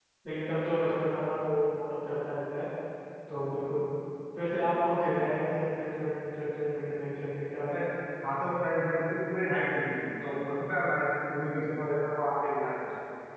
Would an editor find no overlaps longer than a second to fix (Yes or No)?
Yes